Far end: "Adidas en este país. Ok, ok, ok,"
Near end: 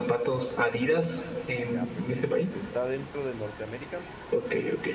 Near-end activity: present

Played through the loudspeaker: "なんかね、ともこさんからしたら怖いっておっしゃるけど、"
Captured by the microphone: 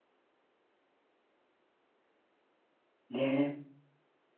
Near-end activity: present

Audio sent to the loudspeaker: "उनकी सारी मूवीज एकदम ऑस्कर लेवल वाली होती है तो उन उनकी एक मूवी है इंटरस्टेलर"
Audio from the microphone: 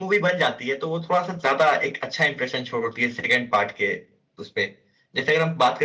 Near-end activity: present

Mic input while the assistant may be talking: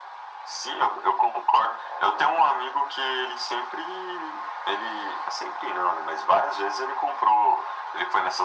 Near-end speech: none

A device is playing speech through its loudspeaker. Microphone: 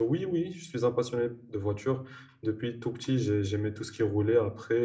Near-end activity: present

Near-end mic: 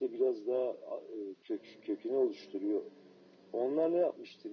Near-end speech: none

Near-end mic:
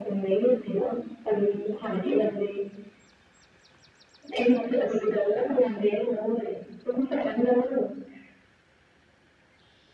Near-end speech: none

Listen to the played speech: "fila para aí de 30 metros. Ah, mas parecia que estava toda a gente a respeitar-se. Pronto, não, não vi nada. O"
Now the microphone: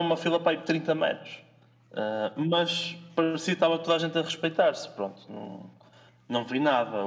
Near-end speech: none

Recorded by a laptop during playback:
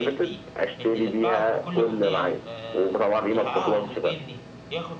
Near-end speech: present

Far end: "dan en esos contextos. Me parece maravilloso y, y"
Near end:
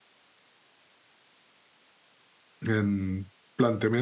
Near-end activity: present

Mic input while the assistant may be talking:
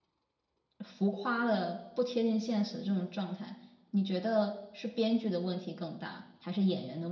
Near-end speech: present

